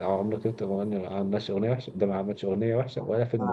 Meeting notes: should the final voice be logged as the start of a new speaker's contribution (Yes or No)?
Yes